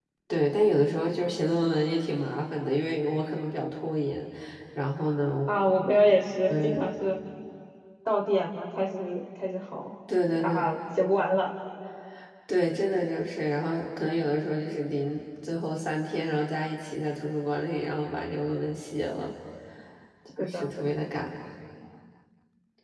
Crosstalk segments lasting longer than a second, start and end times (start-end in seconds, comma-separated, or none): none